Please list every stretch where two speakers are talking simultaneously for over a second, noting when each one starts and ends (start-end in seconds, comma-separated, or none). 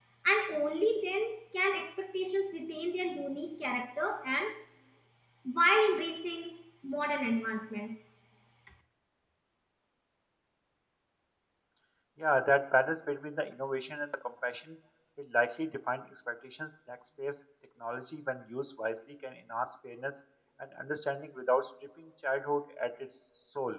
none